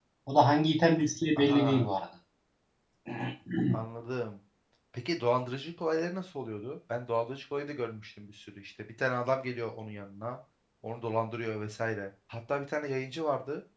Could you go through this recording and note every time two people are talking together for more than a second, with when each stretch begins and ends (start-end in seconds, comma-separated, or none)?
none